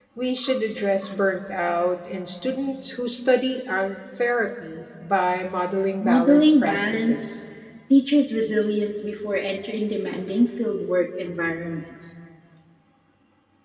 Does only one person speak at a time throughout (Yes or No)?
No